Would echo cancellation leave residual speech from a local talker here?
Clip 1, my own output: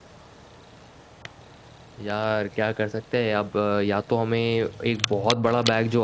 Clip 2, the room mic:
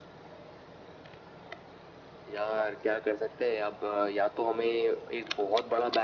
No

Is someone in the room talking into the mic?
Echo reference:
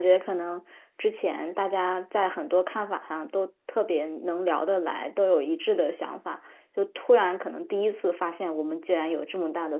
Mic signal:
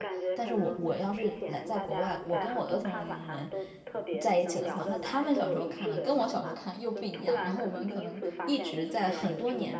Yes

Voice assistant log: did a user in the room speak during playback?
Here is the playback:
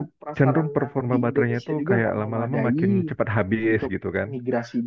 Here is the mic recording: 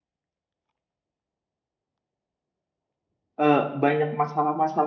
Yes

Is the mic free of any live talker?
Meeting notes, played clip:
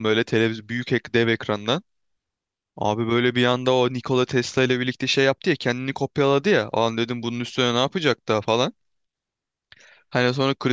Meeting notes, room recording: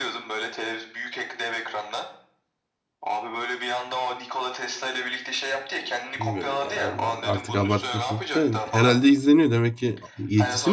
No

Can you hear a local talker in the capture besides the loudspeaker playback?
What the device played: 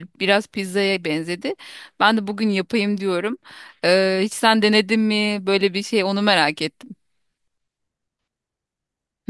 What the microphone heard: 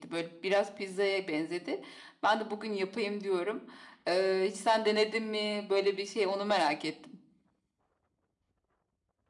No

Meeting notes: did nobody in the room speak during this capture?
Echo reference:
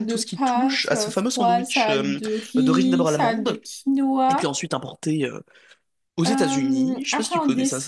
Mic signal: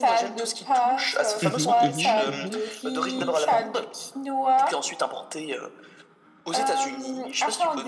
No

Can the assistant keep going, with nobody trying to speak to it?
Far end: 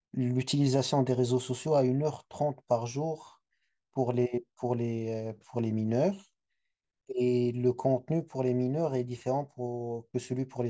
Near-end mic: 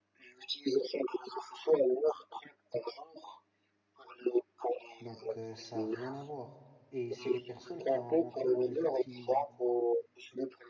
No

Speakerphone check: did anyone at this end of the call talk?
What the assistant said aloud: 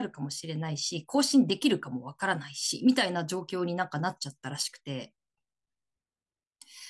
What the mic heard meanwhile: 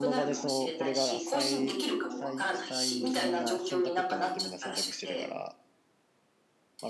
Yes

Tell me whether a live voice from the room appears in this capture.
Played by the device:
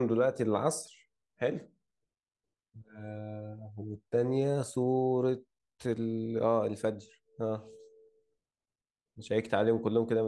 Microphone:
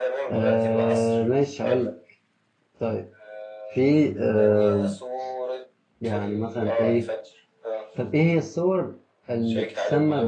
Yes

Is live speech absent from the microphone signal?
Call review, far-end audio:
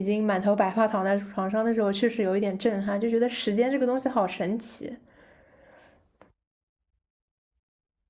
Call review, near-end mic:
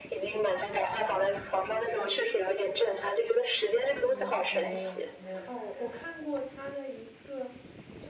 No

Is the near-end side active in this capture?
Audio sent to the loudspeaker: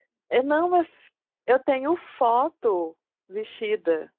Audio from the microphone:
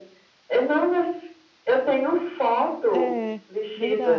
Yes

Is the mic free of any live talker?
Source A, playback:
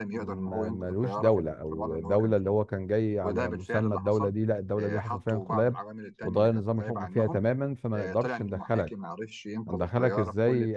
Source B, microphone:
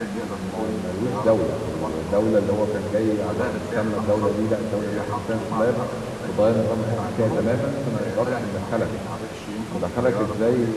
Yes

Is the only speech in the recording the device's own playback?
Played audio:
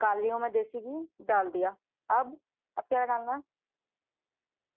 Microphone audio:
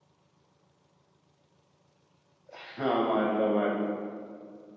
No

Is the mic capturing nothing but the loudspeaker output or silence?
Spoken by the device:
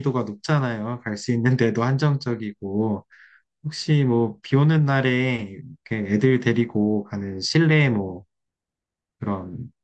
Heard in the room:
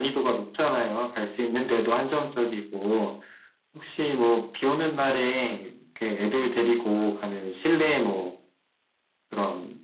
Yes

